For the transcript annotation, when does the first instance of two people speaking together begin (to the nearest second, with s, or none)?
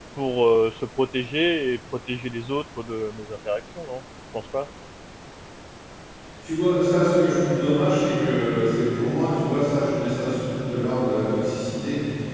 none